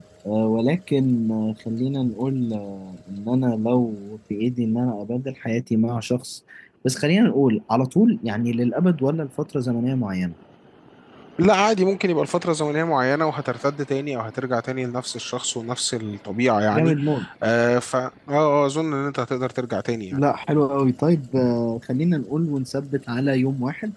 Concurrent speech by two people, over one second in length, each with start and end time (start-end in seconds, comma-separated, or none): none